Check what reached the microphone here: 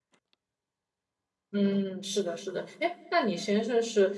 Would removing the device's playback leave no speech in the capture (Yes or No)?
No